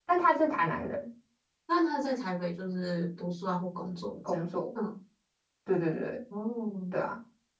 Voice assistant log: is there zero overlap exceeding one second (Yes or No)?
Yes